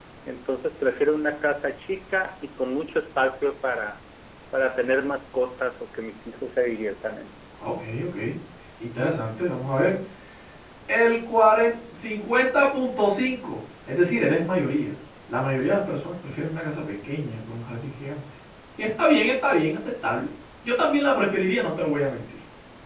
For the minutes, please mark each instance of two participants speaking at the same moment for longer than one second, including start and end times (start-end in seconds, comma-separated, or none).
none